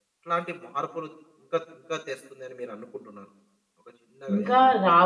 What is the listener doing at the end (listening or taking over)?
taking over